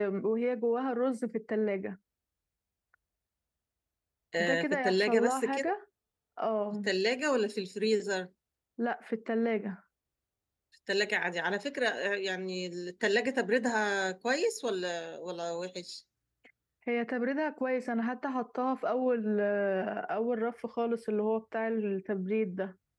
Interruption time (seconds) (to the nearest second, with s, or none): 4 s